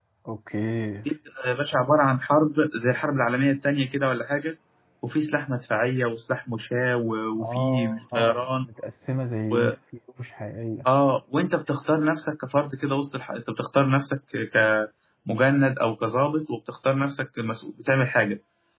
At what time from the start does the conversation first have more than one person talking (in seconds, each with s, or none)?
7.4 s